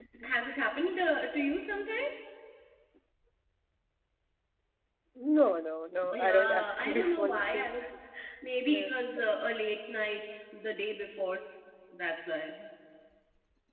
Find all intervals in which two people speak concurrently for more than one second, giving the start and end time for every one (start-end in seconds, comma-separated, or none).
6.1-7.7